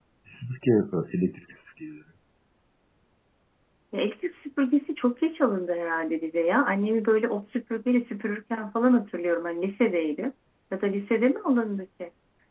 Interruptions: none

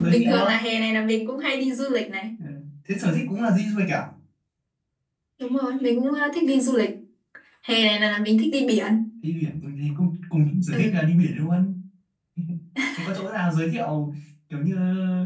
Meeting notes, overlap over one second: none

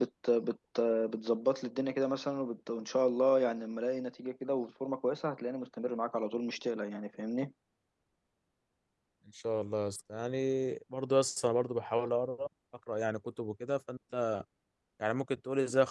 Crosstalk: none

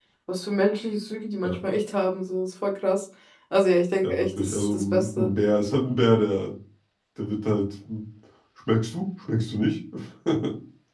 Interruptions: present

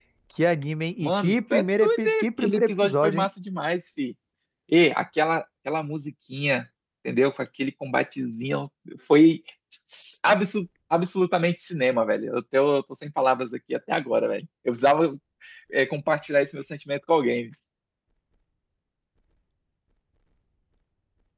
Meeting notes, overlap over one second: present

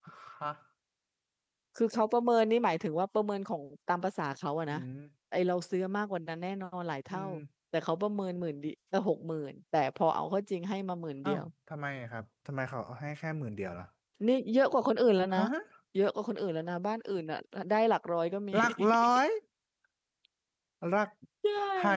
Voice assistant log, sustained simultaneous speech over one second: none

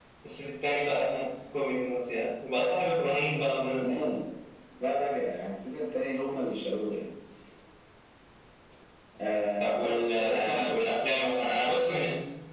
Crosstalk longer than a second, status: present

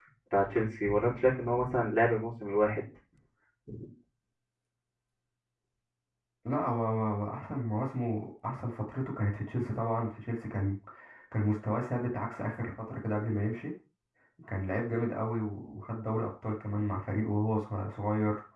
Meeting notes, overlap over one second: none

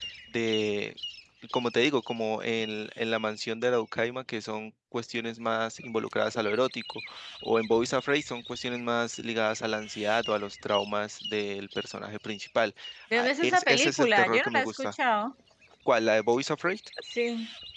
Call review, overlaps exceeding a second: present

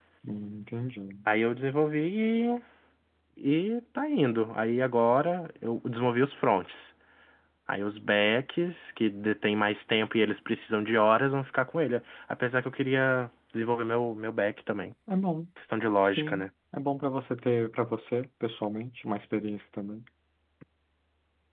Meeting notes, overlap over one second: none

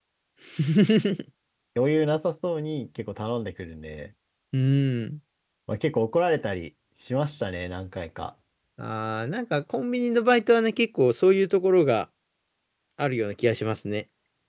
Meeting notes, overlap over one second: none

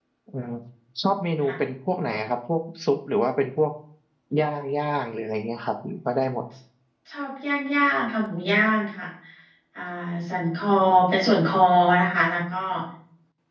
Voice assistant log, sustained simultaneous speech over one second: none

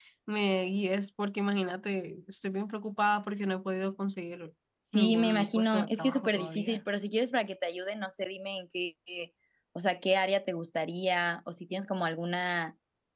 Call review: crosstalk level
present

